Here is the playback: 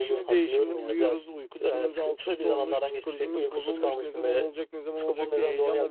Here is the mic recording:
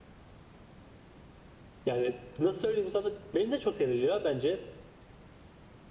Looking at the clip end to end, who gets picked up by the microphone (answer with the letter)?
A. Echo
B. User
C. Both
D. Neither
B